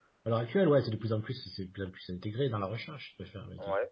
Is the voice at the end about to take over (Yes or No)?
No